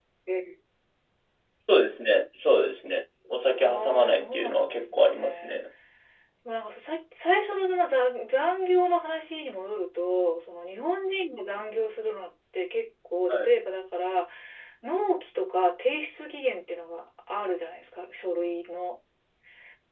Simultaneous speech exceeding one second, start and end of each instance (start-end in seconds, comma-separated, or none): 3.6-5.6